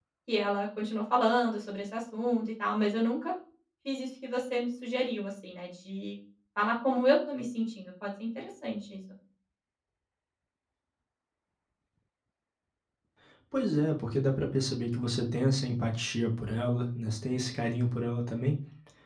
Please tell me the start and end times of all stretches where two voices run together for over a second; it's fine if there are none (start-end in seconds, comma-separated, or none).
none